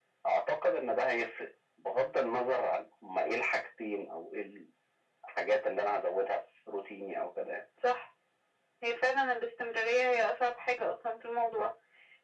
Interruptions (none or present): none